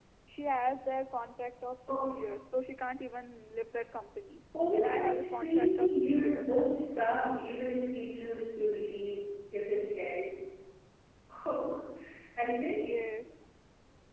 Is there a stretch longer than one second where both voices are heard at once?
Yes, from 4.5 s

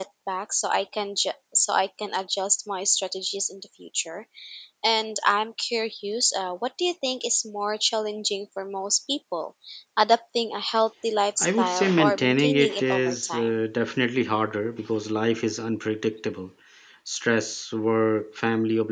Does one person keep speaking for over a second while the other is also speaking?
Yes, from 11.4 s

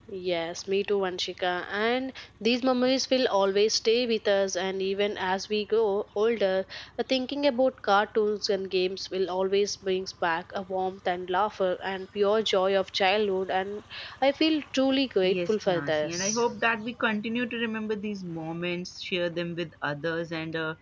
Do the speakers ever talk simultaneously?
Yes, from 15.2 s

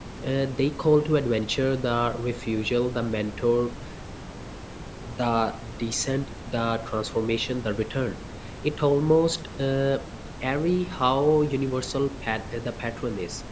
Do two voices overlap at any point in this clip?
No

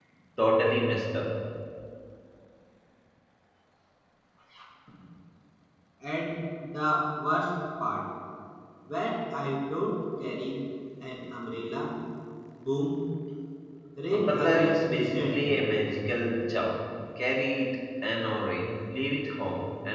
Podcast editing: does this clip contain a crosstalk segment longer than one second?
Yes, from 14.1 s

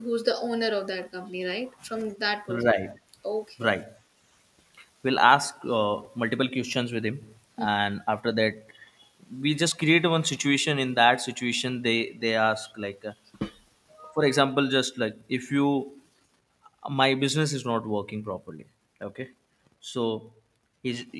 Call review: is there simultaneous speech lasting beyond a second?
No

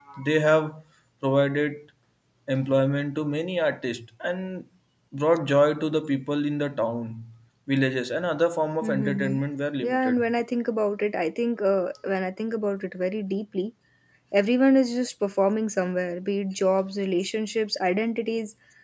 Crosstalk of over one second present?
No

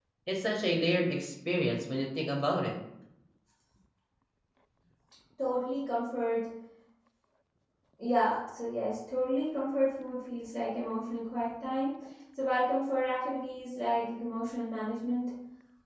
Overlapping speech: No

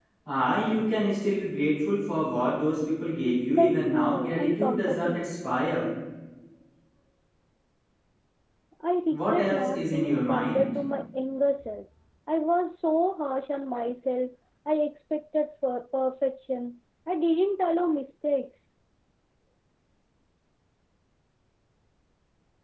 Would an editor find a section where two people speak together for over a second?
Yes, from 3.5 s

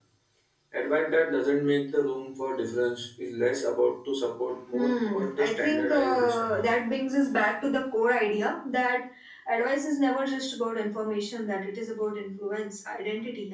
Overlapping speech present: Yes, from 4.7 s

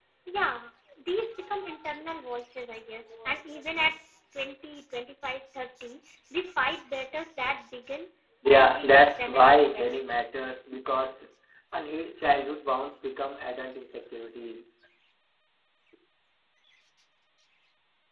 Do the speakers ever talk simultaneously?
Yes, from 8.4 s

